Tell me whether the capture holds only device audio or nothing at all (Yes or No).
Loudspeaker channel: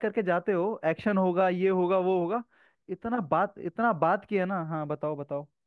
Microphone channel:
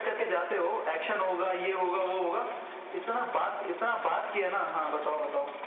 Yes